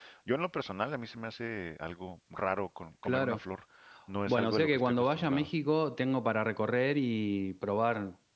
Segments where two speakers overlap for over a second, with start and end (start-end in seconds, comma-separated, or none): 4.3-5.5